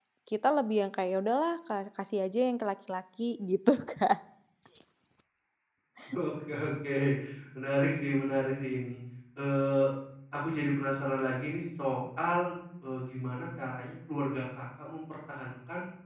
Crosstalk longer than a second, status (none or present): none